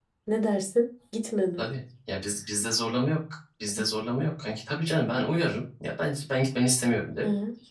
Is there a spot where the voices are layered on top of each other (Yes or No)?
No